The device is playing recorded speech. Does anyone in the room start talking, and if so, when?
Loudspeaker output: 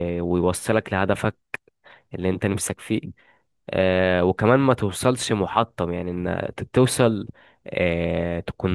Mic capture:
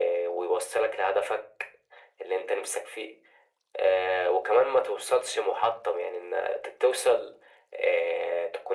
none

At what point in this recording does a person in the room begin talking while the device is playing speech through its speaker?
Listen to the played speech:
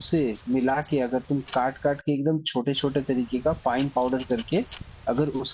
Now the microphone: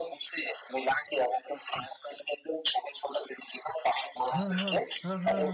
4.3 s

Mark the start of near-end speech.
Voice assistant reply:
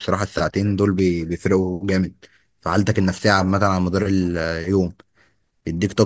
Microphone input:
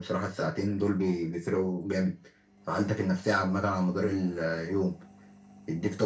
none

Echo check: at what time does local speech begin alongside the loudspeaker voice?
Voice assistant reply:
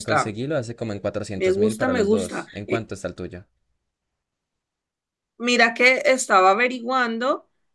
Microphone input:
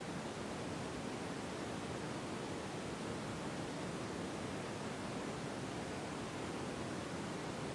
none

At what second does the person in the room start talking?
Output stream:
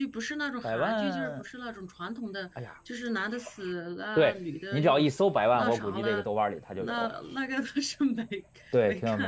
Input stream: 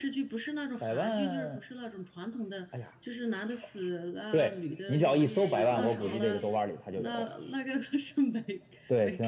5.0 s

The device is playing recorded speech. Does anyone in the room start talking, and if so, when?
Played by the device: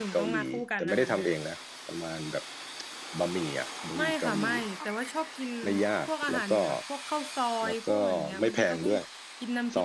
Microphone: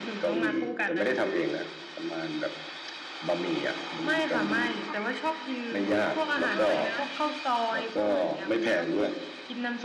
6.5 s

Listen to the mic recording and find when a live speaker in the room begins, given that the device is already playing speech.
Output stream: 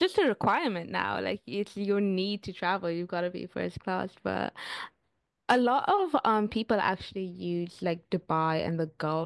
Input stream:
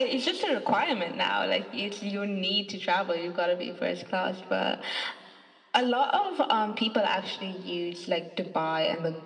none

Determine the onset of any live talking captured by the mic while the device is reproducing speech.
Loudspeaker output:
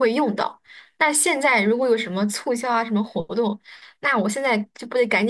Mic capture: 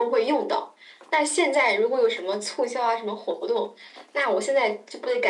none

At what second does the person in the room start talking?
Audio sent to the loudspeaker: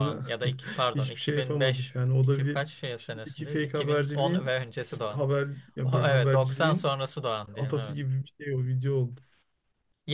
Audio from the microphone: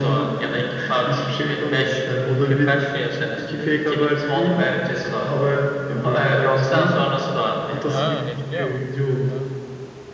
7.9 s

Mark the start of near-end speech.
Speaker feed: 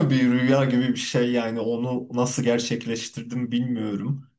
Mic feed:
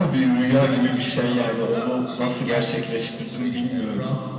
0.4 s

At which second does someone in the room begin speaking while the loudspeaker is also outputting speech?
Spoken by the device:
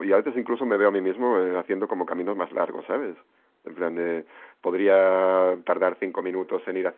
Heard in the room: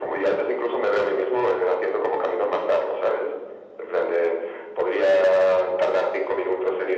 none

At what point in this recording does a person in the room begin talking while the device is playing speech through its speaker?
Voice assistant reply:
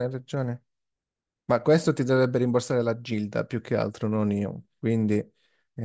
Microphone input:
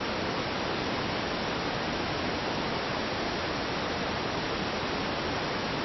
none

